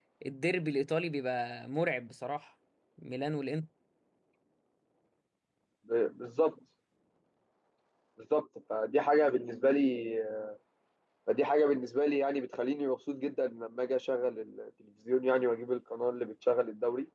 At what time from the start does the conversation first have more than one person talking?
none

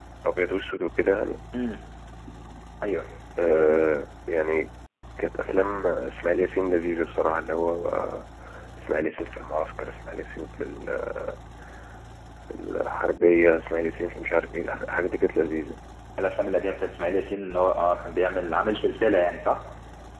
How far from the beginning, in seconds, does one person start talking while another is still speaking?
none

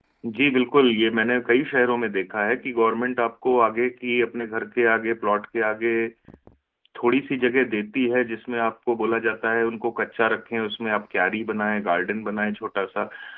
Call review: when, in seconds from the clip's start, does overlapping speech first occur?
none

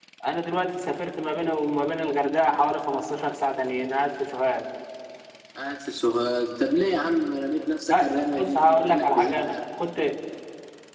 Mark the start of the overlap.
7.9 s

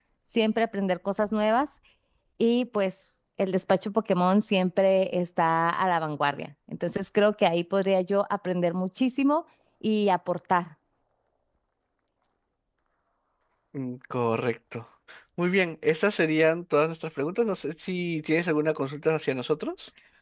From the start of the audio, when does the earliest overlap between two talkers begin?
none

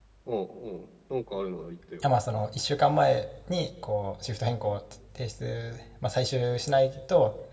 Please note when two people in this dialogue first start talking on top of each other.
none

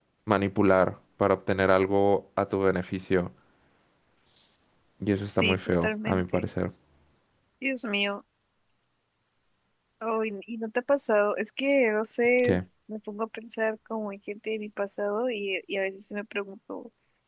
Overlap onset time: 5.2 s

